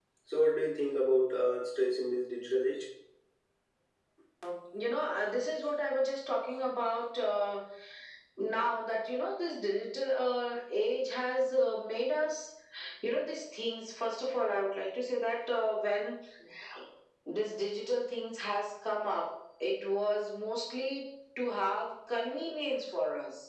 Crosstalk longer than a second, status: none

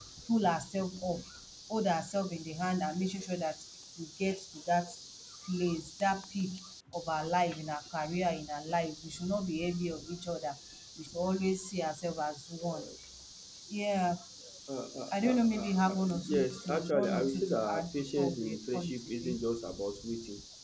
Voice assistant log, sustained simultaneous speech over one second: present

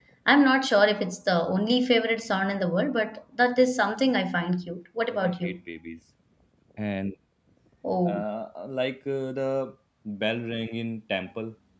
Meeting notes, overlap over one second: none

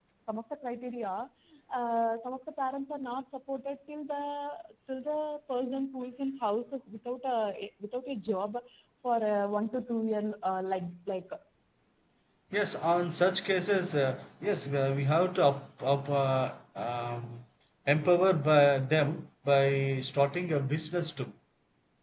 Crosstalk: none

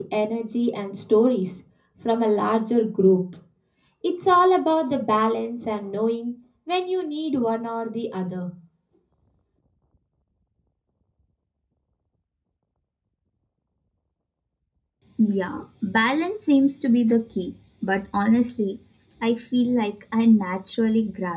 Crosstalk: none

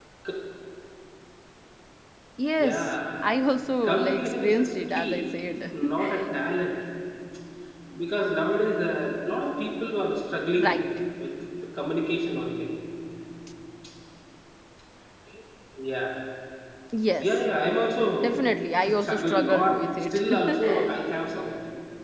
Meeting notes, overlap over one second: present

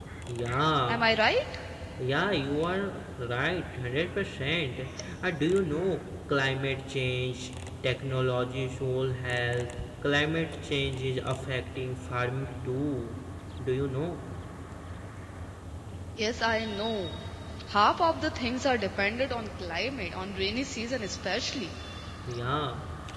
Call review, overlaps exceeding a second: none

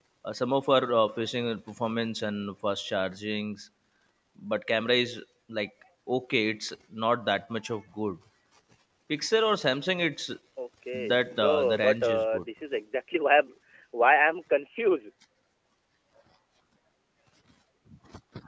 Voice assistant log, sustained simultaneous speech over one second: present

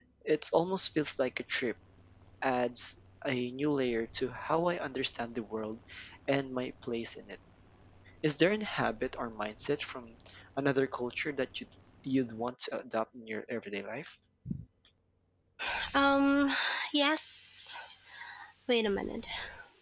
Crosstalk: none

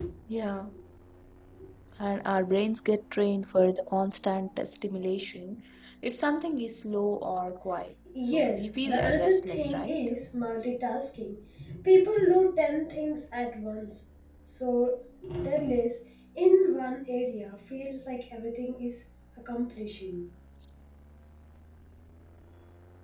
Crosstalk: present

